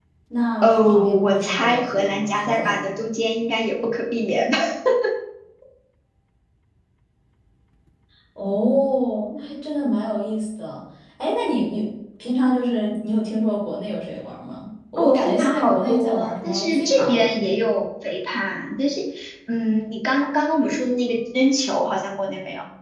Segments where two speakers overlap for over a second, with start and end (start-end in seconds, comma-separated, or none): 0.6-2.9, 15.0-17.3